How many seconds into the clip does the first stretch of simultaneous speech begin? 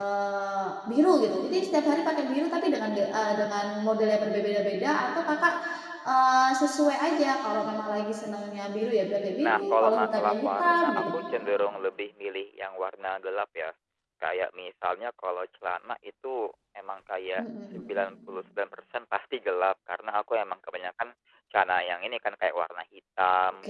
9.4 s

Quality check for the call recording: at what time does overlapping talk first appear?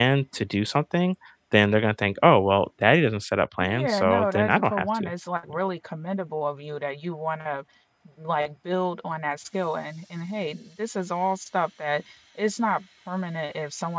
3.6 s

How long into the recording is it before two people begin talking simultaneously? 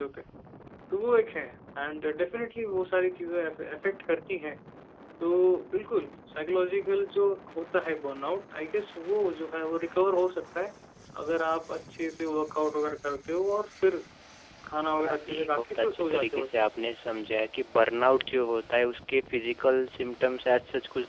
15.0 s

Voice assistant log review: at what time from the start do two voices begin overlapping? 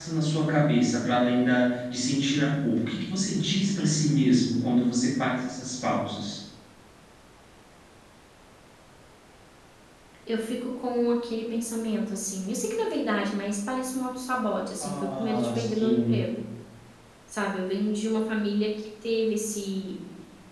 14.8 s

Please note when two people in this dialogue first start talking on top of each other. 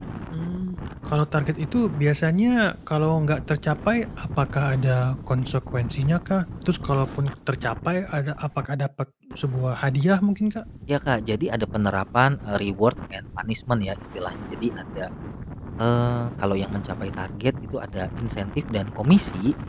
none

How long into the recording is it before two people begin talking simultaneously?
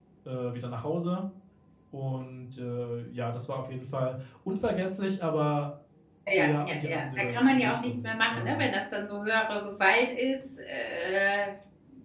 6.4 s

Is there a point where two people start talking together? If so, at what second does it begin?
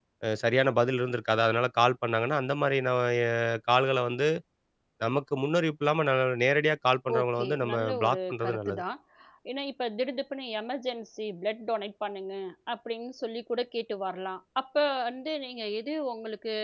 7.1 s

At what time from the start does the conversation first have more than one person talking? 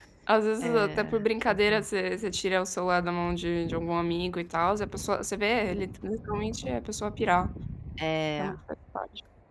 0.6 s

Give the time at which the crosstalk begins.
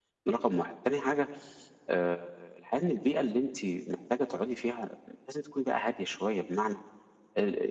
none

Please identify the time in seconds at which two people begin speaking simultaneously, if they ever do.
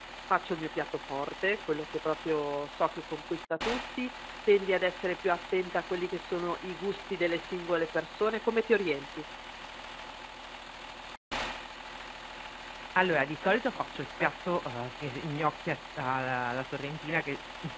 none

